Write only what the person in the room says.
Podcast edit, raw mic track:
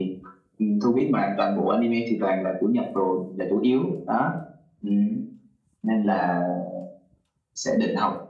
none

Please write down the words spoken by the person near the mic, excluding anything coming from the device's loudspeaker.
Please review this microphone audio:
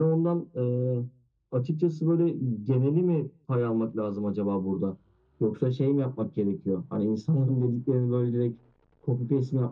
none

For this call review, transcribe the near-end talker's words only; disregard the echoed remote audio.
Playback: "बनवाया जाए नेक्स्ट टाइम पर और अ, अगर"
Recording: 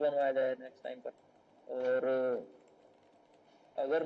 none

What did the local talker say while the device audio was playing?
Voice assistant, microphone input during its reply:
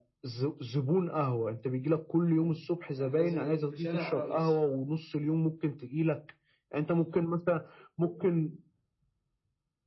امم يعني لازم يكون في شارع رئيسي

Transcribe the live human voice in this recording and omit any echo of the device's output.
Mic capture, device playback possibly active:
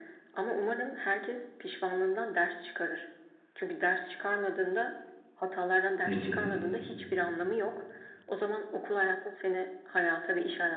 Hı hı.

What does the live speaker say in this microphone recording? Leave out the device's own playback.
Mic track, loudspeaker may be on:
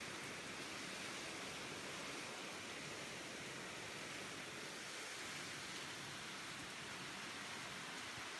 none

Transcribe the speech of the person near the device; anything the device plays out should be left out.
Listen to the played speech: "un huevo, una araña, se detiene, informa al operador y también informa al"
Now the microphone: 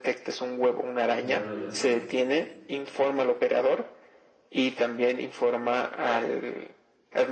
Ah, ya,

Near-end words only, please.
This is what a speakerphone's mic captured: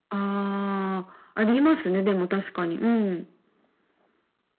none

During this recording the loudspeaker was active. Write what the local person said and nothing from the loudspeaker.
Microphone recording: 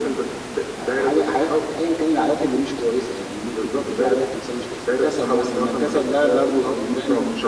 none

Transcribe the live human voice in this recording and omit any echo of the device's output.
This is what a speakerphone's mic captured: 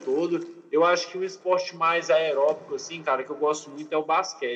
none

